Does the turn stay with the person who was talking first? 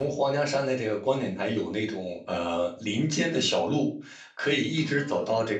Yes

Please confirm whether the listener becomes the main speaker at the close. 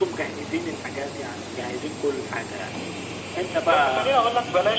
Yes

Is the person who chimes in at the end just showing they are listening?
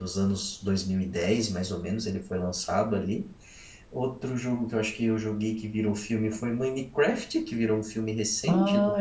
No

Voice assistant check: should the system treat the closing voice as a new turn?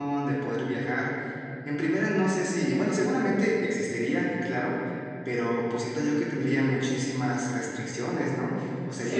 Yes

